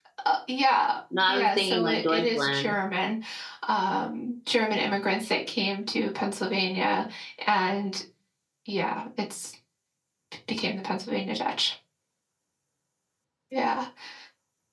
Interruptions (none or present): present